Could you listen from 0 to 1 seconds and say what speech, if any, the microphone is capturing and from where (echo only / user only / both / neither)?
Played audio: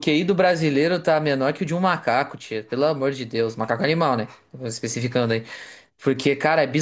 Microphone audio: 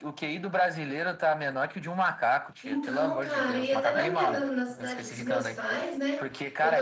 echo only